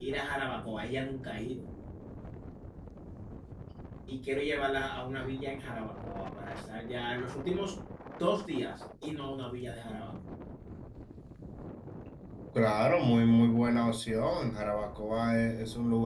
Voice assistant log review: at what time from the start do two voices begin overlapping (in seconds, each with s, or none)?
none